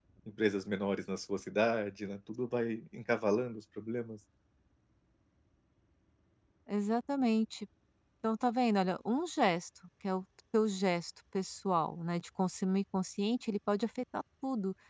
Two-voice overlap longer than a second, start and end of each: none

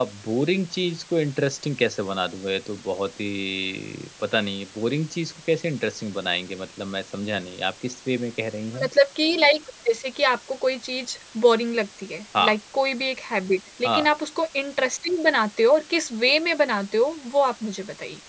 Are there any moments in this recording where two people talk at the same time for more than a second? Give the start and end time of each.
none

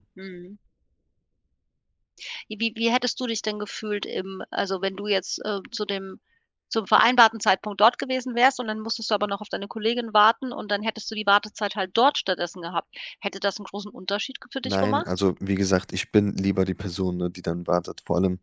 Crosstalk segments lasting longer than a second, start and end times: none

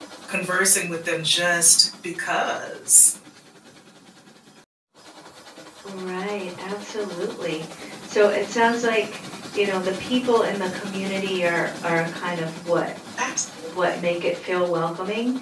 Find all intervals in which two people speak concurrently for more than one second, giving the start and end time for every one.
none

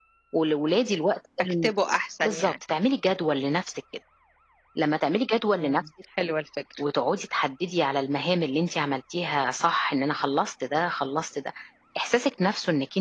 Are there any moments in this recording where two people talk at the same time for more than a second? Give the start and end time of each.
none

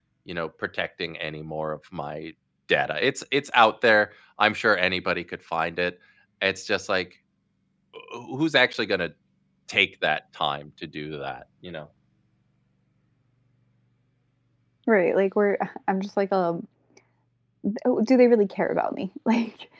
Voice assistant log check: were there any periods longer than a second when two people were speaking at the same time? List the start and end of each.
none

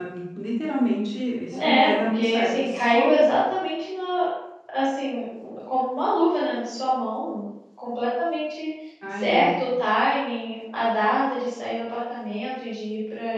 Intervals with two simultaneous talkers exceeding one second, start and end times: 1.6-3.0

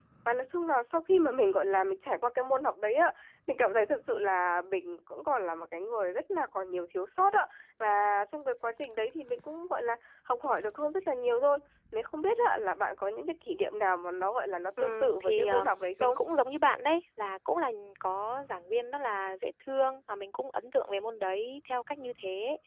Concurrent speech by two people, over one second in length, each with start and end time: 14.8-16.2

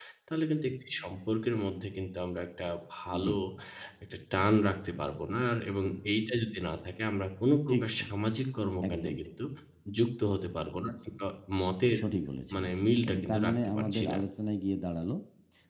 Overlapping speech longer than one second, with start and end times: 12.5-14.2

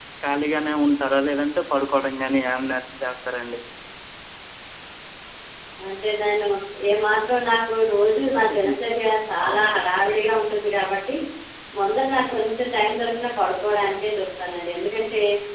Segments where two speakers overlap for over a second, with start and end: none

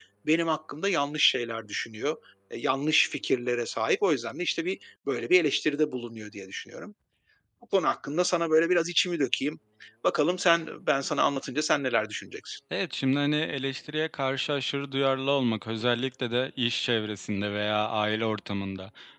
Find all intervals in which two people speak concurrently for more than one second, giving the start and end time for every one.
none

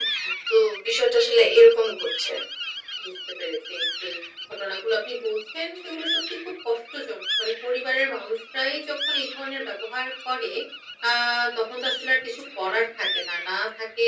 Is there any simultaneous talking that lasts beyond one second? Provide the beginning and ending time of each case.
none

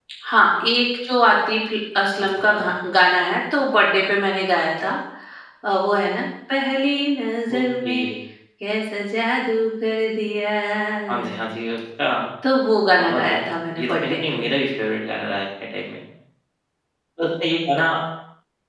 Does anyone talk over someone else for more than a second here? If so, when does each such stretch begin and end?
13.0-14.4

